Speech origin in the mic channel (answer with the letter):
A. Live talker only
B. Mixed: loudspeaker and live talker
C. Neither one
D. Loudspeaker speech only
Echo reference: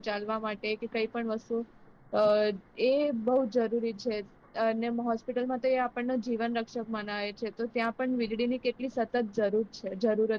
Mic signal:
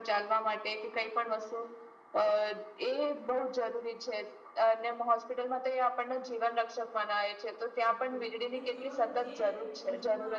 B